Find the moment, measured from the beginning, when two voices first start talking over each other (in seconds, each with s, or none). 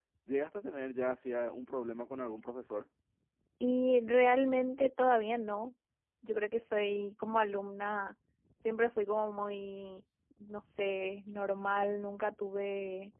none